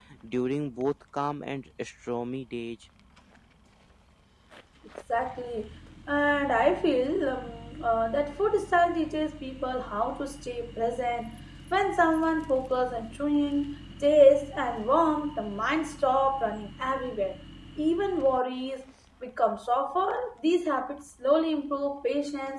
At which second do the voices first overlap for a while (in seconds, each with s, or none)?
none